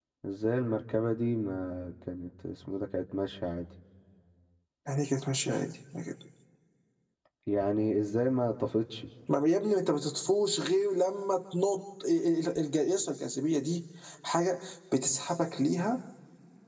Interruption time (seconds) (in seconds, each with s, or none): none